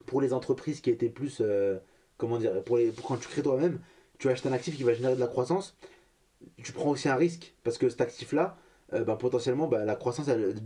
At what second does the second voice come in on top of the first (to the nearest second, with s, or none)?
none